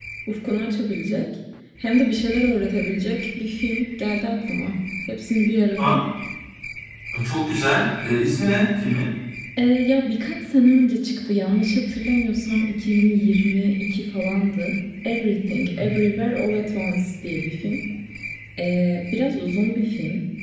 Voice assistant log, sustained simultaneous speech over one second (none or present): none